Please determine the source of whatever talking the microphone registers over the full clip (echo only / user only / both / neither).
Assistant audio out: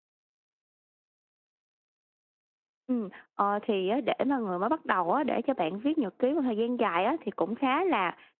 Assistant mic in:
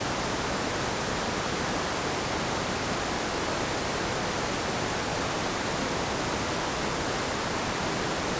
neither